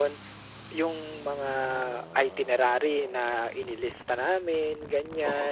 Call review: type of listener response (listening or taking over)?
listening